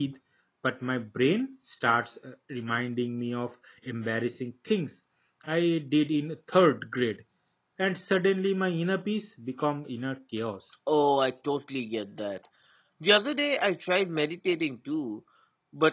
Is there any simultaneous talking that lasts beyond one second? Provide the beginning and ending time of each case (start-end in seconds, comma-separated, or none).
none